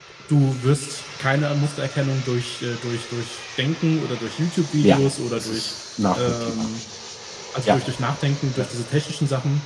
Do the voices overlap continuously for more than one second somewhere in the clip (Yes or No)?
No